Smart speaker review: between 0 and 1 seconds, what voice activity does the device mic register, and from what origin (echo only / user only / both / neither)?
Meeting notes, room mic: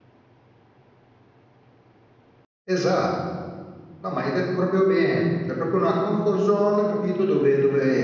neither